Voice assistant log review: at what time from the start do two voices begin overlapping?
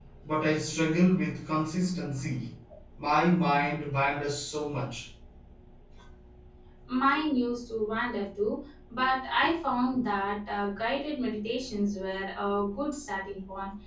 none

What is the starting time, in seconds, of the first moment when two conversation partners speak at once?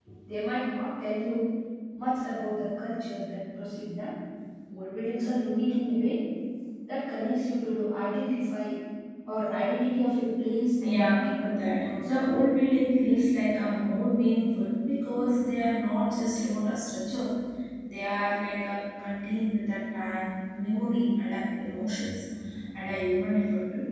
10.8 s

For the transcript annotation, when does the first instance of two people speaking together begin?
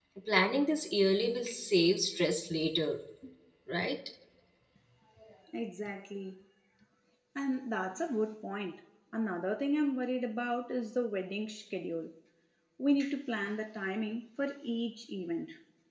none

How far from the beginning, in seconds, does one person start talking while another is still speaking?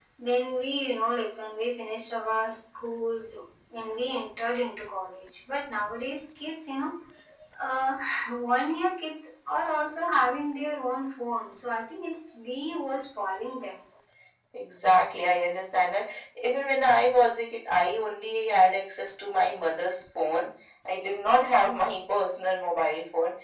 none

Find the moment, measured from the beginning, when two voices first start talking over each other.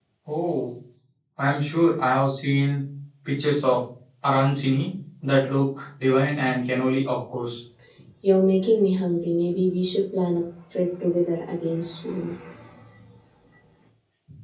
none

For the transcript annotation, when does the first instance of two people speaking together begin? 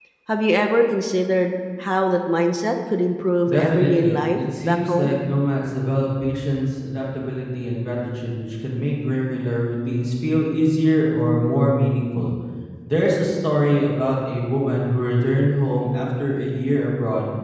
3.5 s

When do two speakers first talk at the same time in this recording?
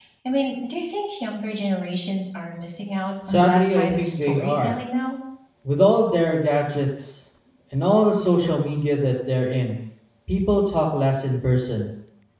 3.3 s

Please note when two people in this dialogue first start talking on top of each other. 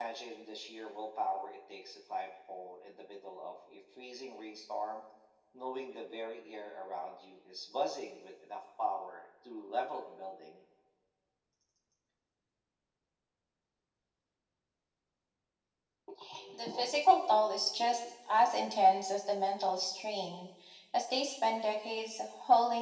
none

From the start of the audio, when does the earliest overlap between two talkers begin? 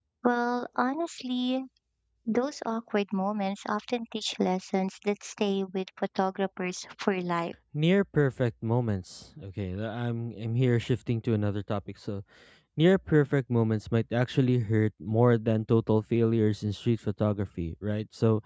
none

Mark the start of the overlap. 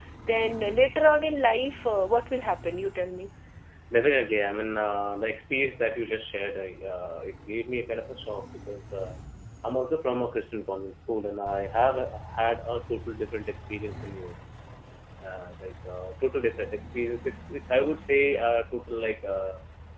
none

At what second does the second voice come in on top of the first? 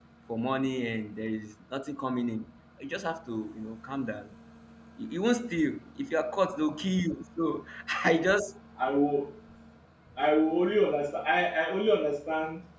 none

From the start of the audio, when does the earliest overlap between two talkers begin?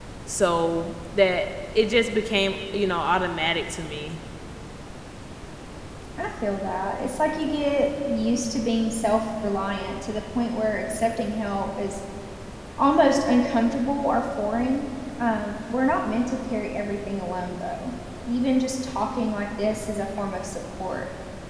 none

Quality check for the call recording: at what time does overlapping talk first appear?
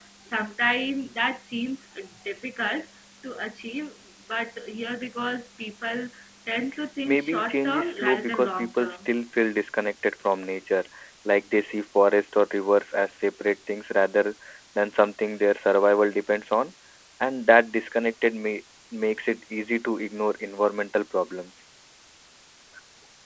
7.0 s

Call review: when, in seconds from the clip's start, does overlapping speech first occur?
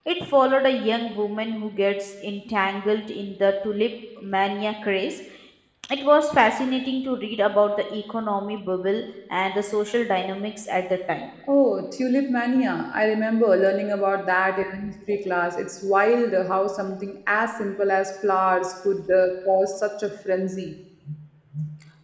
none

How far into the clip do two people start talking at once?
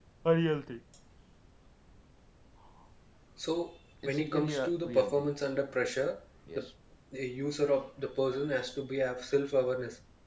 4.1 s

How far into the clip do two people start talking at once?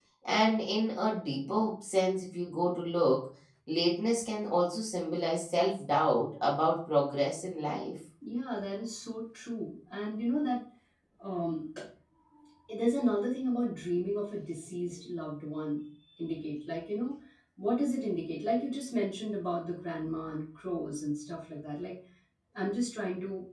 none

